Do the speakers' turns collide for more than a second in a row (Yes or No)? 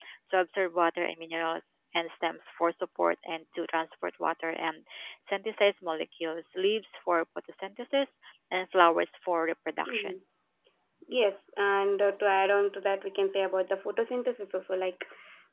No